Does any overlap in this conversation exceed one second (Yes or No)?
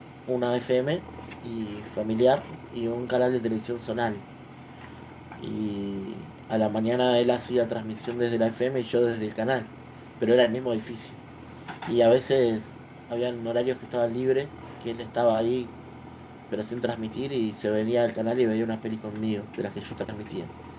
No